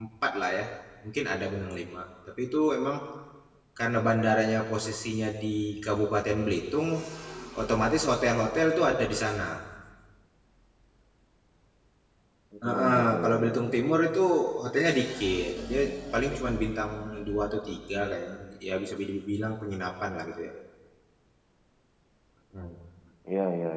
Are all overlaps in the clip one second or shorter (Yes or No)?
No